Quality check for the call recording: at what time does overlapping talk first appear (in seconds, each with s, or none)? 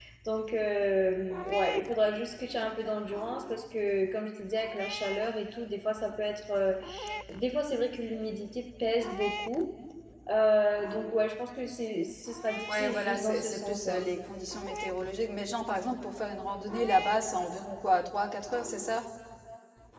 12.7 s